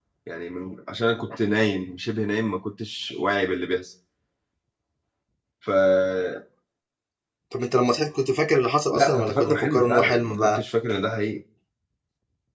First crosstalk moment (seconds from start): 8.9 s

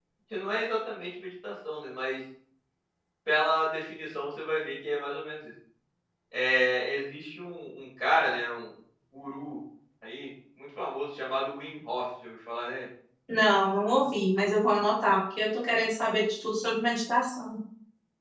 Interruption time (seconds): none

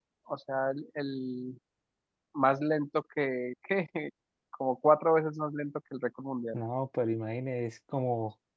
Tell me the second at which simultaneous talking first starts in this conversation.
none

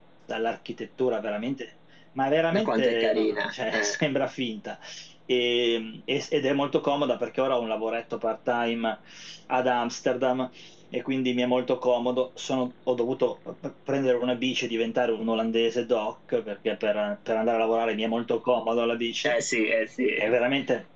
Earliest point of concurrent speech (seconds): 2.5 s

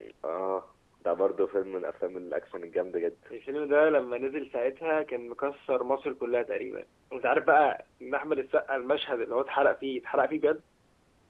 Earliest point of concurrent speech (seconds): none

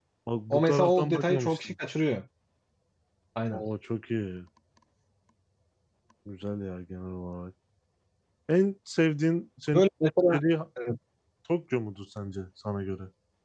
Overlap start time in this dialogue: 0.5 s

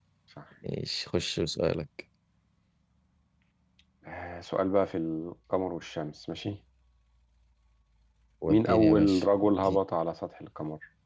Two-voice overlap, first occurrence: 8.5 s

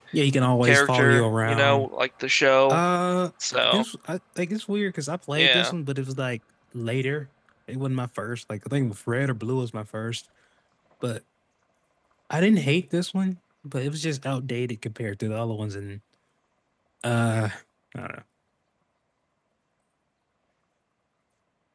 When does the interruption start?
0.6 s

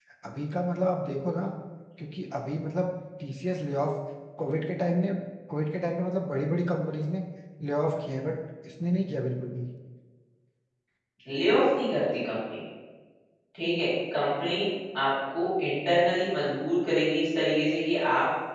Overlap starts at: none

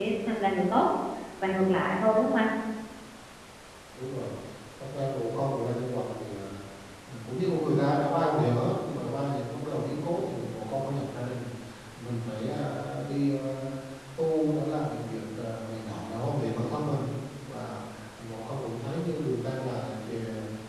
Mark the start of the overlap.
none

